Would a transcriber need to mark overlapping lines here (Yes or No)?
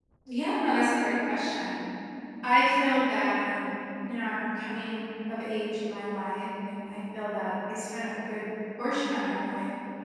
No